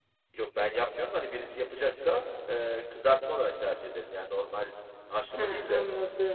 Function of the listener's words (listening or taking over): taking over